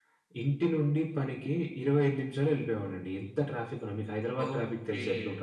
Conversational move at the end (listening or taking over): taking over